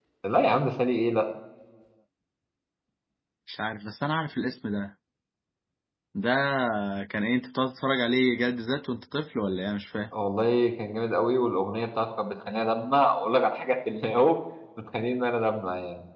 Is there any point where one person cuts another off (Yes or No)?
No